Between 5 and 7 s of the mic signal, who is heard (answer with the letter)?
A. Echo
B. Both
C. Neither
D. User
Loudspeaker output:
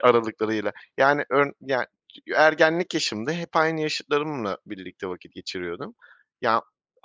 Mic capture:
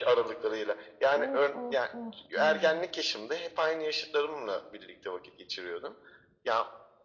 A